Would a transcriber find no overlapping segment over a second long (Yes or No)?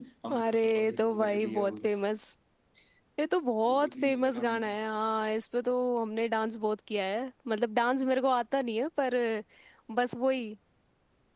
No